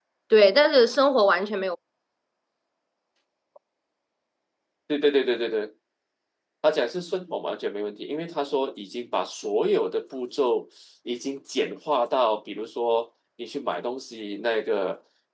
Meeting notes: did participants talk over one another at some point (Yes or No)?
No